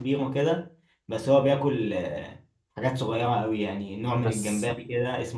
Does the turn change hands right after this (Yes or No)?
No